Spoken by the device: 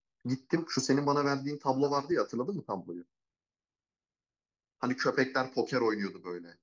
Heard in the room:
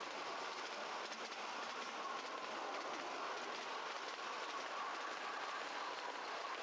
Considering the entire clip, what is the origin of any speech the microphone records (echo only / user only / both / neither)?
neither